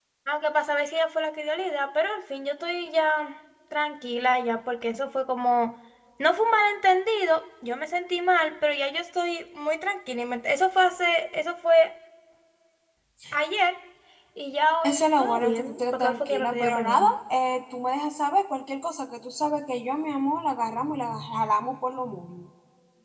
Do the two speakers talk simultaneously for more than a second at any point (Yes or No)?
Yes